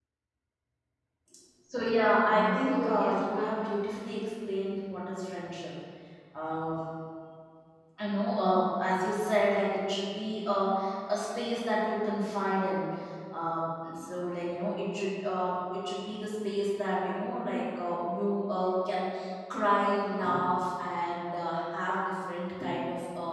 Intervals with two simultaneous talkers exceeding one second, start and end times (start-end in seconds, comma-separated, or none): 2.3-3.8